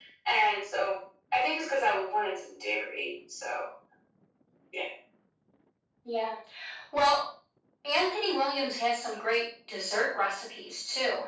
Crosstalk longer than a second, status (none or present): none